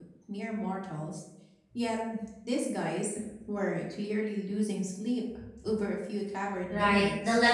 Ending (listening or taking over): taking over